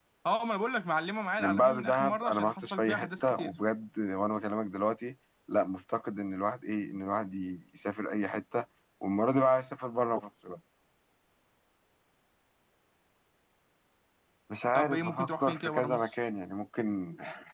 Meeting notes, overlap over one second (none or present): present